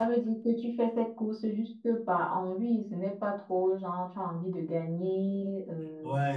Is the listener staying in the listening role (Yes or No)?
Yes